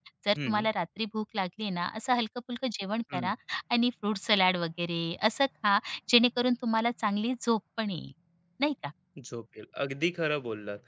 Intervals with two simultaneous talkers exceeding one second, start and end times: none

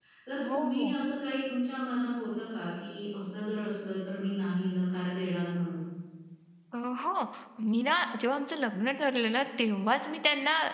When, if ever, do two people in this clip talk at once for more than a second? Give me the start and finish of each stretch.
none

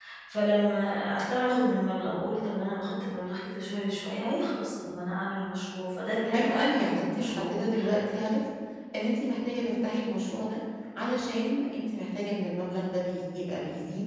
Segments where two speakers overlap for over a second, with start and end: 6.3-7.5

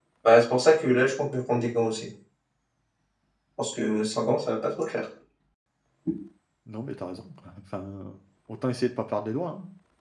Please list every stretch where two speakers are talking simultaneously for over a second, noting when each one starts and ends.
none

